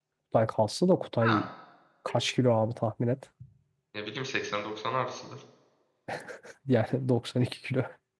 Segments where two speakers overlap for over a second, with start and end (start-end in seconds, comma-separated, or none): none